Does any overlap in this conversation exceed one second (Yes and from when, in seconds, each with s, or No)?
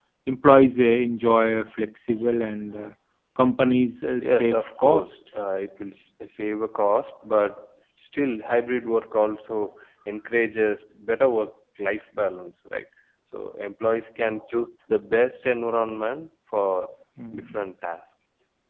Yes, from 4.2 s